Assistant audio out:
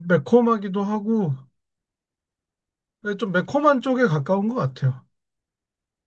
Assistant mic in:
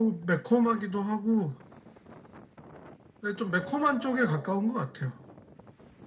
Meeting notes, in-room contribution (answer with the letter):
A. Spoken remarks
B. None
A